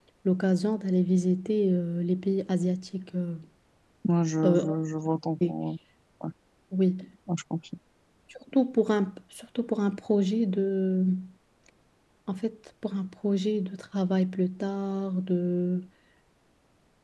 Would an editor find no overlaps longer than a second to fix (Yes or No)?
Yes